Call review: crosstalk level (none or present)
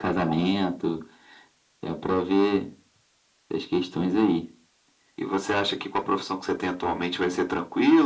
none